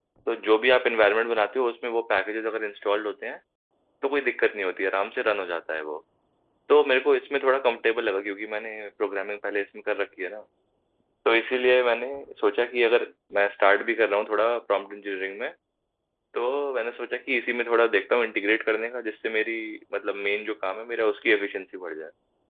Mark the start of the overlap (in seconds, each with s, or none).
none